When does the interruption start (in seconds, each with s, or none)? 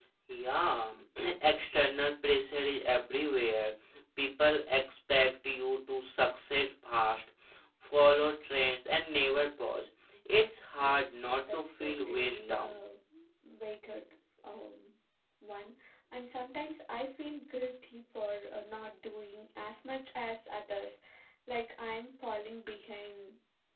10.8 s